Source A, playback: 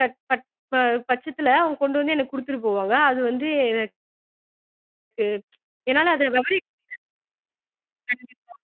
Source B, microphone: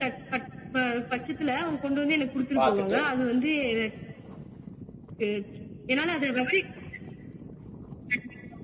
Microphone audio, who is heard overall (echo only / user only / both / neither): both